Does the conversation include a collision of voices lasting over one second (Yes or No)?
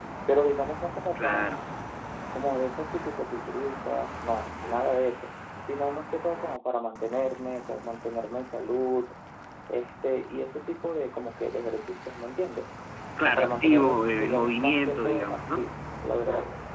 Yes